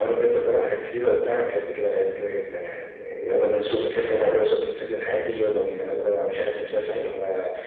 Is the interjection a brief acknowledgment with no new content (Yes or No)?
Yes